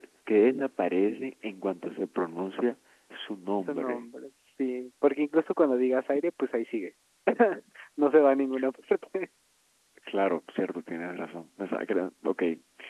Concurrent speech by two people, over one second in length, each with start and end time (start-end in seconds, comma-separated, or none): none